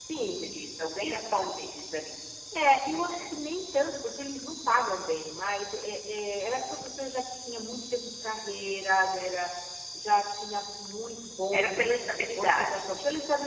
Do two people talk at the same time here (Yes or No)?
Yes